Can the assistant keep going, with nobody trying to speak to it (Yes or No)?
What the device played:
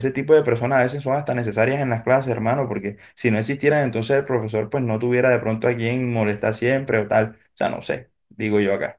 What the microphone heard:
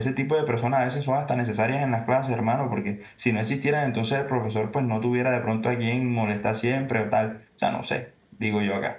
Yes